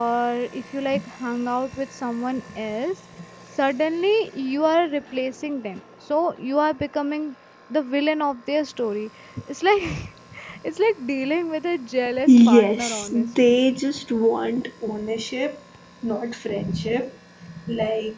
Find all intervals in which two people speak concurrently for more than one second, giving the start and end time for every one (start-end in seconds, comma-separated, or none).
12.3-13.6